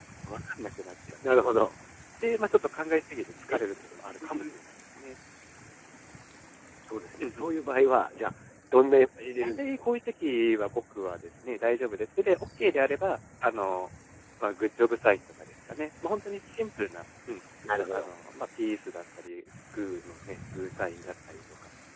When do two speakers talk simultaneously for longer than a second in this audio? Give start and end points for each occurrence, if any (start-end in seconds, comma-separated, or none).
none